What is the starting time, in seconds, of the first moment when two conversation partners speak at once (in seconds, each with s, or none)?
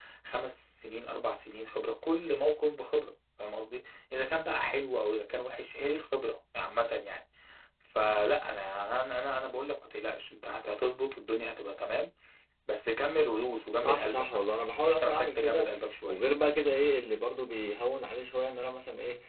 13.8 s